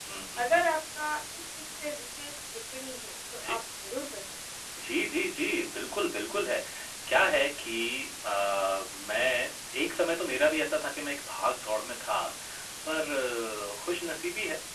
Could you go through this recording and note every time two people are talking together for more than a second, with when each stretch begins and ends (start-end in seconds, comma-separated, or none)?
none